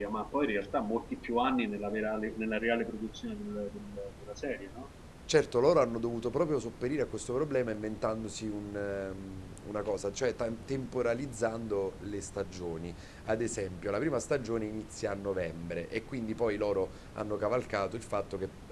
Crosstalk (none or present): none